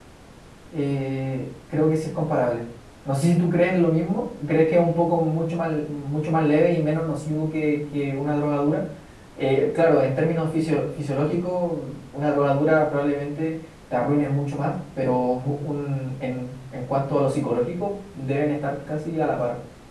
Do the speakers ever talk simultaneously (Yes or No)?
No